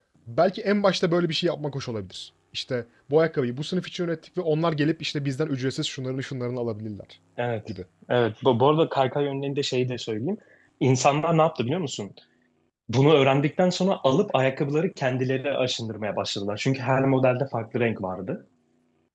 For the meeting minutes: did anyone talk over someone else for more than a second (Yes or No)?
No